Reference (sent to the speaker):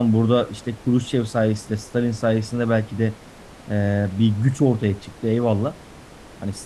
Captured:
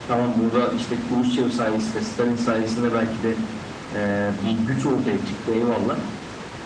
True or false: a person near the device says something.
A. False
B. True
A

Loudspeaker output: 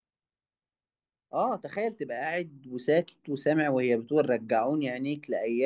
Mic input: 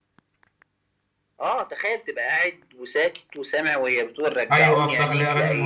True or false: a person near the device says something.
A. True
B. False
A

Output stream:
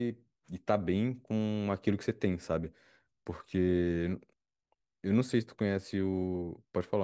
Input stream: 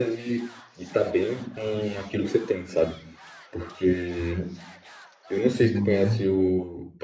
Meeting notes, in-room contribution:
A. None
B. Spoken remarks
B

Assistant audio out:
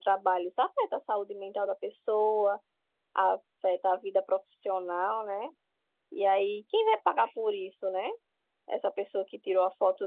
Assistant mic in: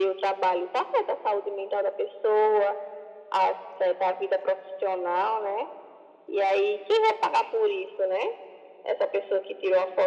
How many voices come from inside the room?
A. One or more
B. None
B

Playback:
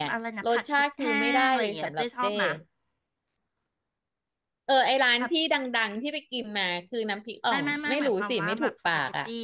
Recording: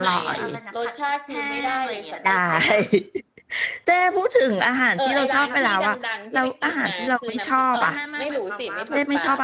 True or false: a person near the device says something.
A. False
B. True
B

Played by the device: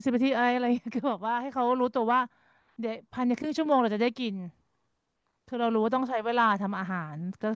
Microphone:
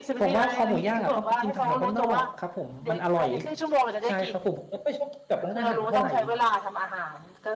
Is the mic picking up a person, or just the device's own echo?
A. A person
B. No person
A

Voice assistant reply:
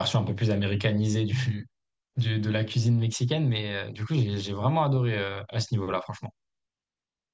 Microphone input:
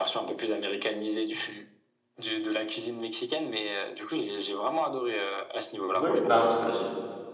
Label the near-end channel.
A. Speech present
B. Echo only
A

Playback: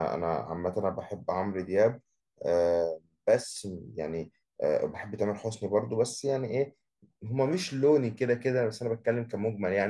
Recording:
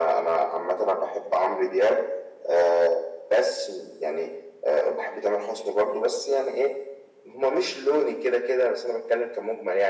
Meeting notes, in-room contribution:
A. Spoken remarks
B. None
B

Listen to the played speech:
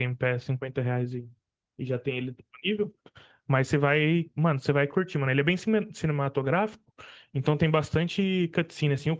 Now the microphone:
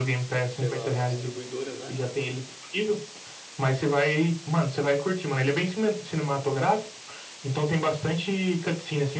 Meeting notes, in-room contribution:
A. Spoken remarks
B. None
A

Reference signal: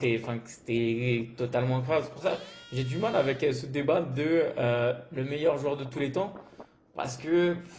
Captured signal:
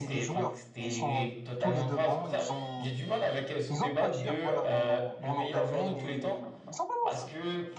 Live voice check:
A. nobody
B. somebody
B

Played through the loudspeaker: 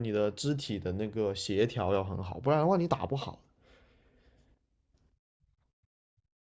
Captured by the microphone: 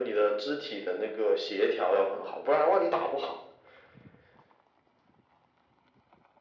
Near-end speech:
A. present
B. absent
B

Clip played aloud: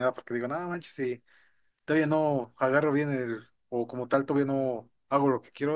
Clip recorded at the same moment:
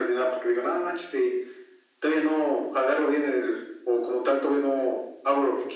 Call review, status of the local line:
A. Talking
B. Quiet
B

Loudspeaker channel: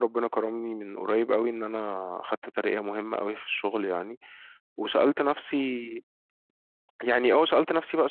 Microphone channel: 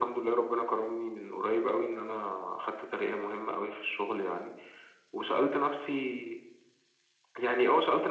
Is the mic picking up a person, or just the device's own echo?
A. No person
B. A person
A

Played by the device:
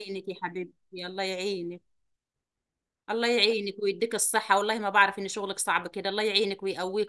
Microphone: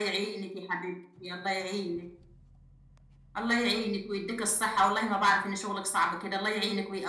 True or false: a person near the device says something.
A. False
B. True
A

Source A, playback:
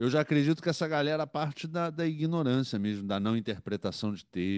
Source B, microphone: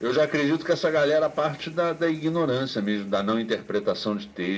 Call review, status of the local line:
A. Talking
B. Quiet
B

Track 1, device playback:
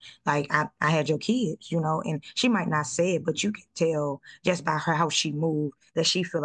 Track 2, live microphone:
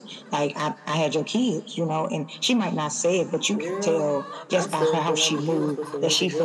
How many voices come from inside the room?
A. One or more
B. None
A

